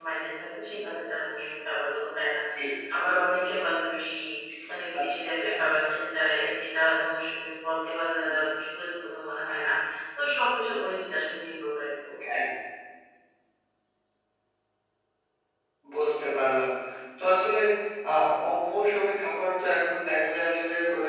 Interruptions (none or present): none